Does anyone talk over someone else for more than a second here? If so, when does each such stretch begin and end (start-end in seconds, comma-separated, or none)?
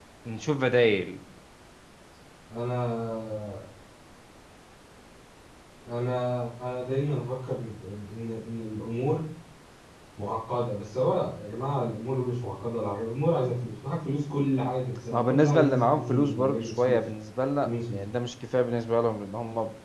15.1-17.1